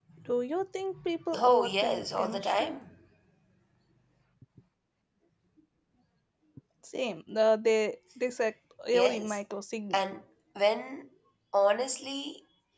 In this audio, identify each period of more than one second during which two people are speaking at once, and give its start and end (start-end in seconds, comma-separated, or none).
1.4-2.8